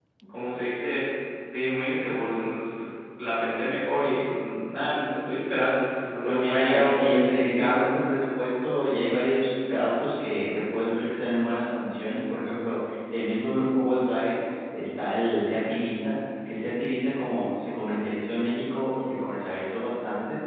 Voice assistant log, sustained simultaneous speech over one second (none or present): present